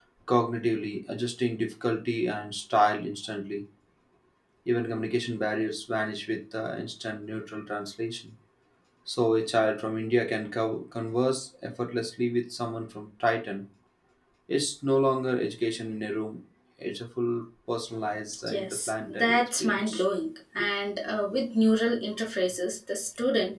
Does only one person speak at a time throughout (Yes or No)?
No